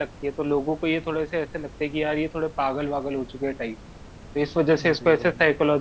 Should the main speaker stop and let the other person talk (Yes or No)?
No